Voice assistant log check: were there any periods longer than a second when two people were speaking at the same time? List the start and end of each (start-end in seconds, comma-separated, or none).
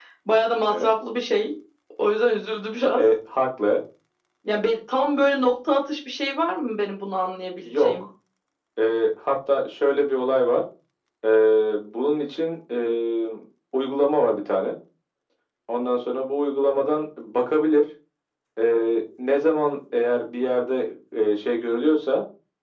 none